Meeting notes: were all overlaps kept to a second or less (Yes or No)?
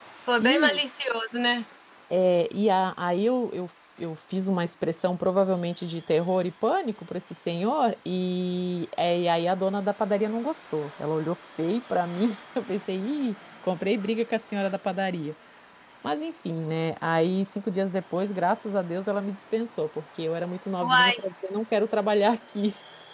Yes